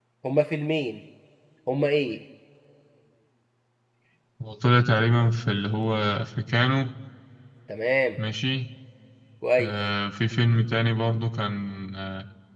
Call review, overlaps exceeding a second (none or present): none